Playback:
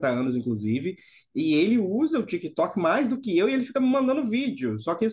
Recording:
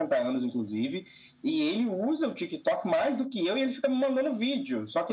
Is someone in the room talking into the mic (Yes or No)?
No